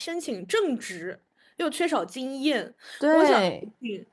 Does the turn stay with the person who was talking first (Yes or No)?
Yes